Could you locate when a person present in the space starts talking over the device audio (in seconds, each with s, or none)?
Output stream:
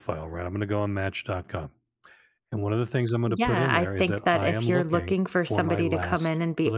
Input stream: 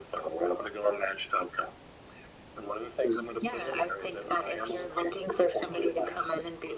none